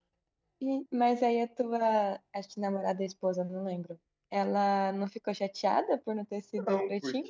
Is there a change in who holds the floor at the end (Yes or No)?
Yes